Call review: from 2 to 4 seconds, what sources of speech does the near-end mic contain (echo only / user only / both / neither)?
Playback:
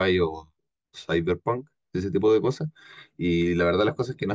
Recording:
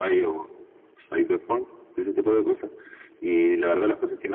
echo only